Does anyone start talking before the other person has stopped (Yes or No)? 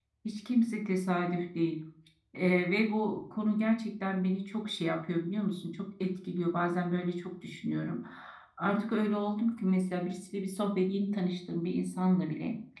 No